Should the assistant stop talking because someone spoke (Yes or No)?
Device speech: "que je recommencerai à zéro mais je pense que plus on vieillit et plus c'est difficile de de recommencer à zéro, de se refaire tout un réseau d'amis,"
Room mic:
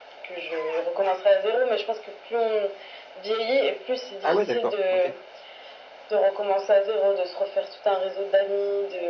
Yes